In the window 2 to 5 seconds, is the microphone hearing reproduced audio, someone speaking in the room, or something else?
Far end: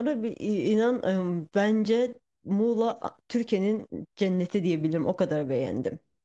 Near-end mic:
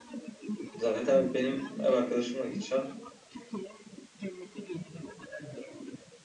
both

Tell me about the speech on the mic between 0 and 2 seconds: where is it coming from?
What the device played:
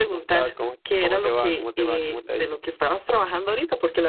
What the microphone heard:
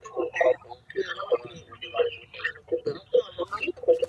echo only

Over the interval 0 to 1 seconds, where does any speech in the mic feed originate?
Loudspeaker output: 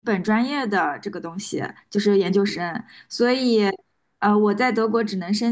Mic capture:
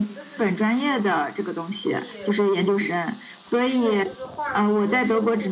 both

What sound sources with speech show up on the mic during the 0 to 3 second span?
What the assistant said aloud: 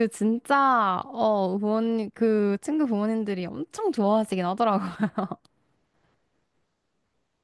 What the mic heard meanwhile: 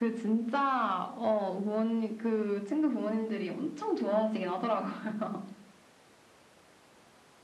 echo only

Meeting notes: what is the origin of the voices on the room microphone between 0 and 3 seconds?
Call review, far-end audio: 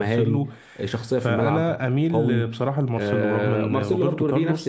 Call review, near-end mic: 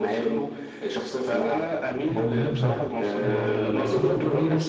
both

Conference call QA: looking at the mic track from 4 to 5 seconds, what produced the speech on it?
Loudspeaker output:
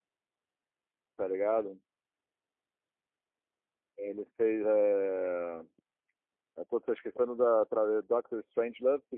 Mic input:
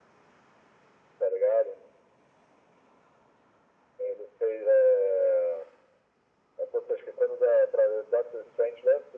echo only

